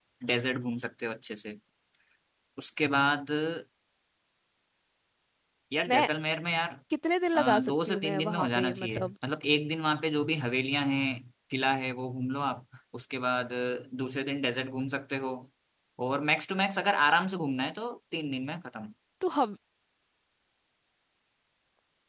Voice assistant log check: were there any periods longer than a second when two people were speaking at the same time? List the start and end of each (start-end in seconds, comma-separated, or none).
7.3-9.1